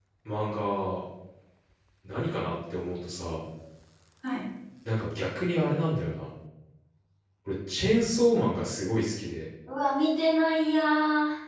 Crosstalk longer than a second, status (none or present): none